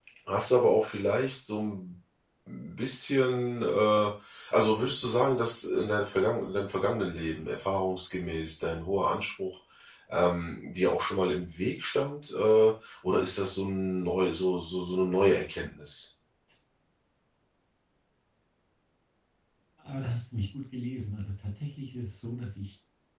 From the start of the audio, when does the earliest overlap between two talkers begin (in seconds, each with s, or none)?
none